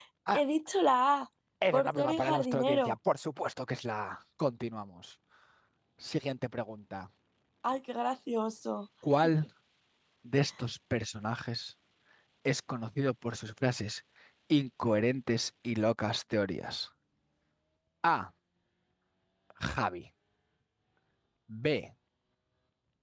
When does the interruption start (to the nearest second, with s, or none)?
2 s